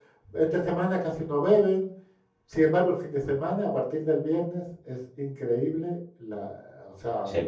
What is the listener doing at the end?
taking over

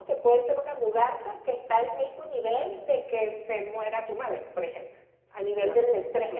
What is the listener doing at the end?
taking over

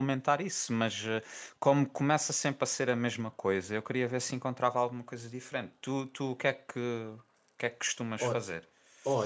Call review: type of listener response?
taking over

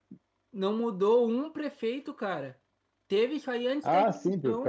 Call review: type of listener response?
taking over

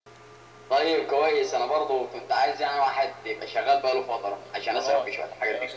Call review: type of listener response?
taking over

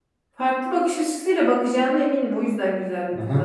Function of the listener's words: taking over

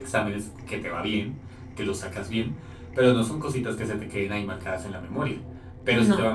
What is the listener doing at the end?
listening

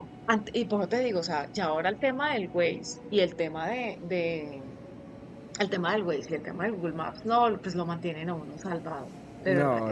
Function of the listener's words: taking over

